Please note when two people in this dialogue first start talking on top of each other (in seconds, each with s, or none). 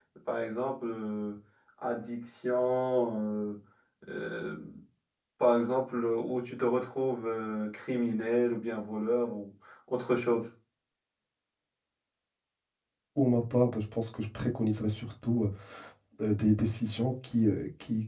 none